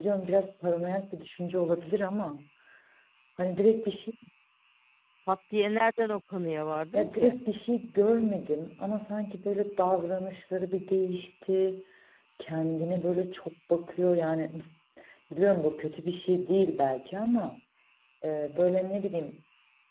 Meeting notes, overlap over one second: none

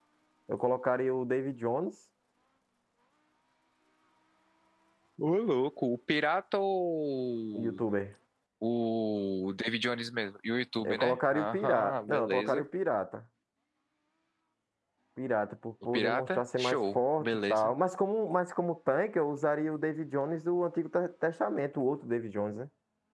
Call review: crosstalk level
present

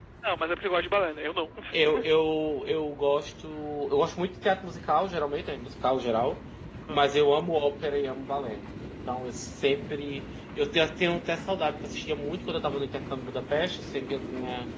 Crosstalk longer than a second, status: none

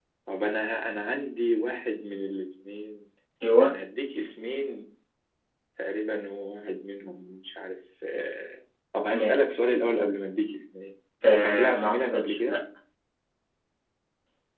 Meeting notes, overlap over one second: present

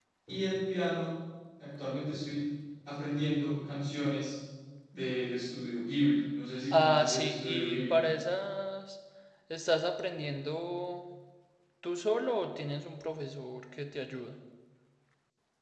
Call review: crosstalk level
present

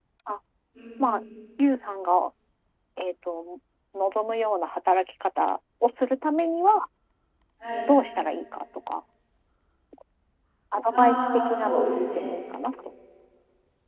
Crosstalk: present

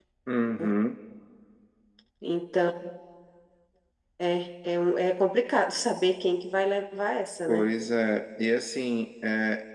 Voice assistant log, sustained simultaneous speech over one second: none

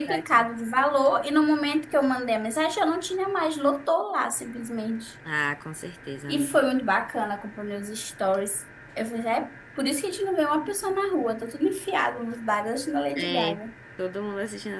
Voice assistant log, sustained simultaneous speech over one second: none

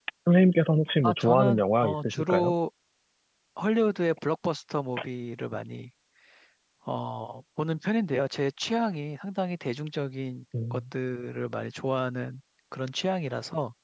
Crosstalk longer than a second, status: present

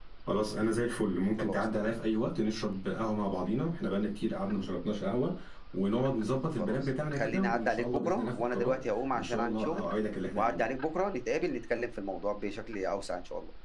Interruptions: present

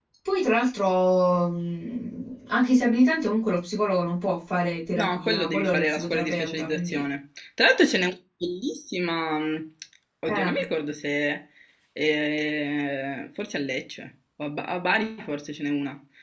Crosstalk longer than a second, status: present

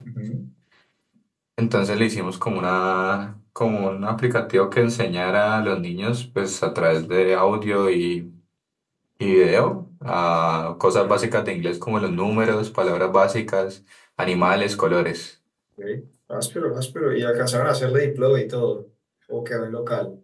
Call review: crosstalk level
none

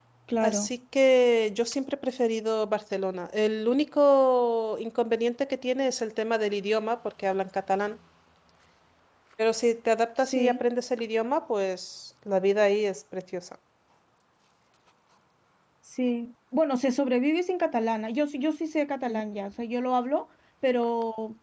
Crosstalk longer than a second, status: none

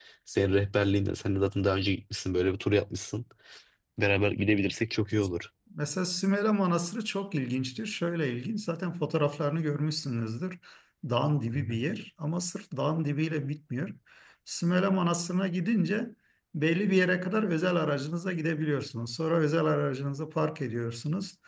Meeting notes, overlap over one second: none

